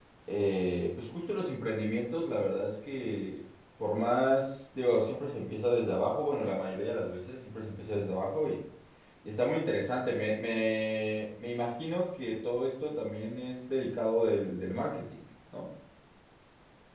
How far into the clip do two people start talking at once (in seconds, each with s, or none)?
none